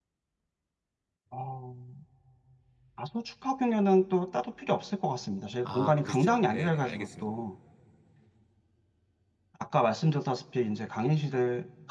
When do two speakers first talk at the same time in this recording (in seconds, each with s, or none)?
5.7 s